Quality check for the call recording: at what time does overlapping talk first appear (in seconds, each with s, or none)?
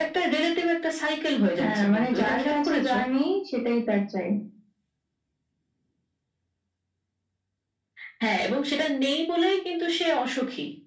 1.6 s